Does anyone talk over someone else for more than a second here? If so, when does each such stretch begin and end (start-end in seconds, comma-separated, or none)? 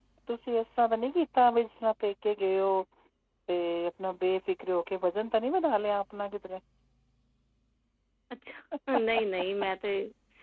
none